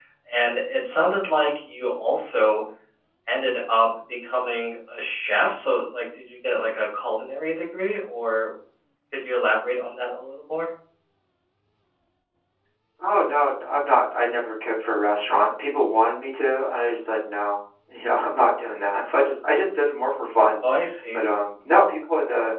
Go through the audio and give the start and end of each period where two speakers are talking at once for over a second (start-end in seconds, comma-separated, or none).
none